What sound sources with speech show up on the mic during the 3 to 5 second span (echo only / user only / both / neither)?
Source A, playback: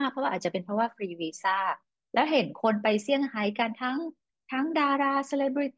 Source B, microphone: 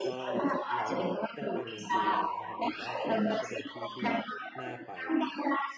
both